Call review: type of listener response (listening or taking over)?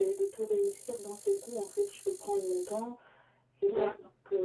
listening